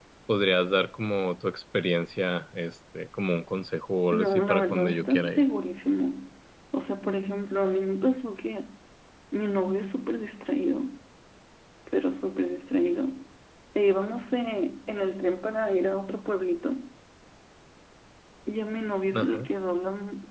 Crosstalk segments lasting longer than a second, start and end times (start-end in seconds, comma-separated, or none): 4.1-5.4